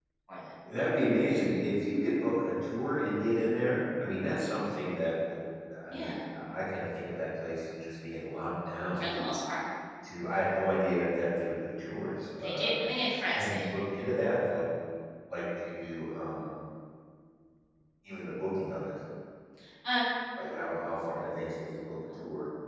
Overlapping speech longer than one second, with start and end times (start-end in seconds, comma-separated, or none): none